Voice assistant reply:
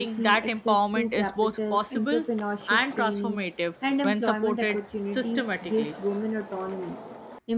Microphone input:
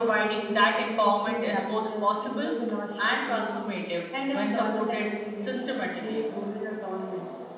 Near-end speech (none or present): none